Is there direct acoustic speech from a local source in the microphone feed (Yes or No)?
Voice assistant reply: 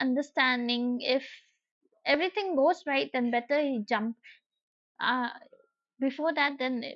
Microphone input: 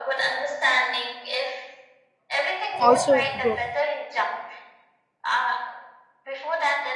Yes